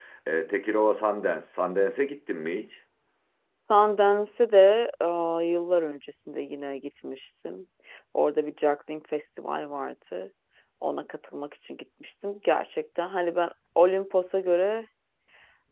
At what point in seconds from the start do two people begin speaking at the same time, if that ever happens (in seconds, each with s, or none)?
none